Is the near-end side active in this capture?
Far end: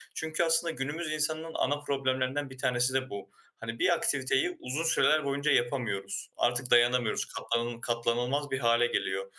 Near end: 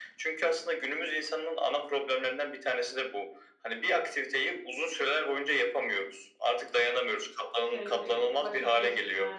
Yes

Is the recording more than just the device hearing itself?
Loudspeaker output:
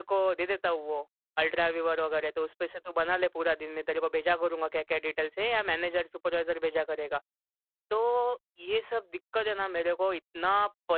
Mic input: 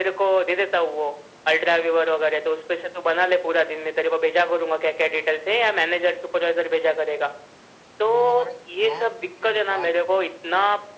Yes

